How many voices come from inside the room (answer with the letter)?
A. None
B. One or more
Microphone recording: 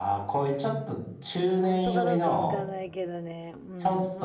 B